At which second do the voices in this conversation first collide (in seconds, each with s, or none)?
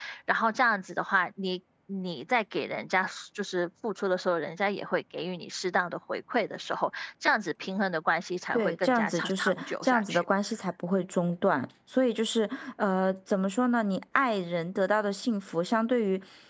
8.5 s